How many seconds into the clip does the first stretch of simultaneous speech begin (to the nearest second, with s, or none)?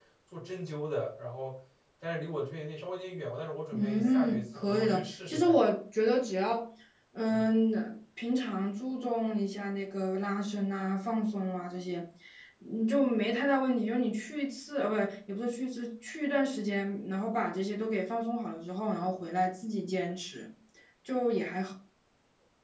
4 s